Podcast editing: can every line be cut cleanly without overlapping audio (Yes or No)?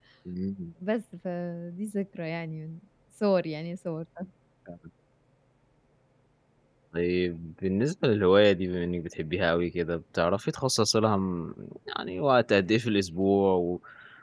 Yes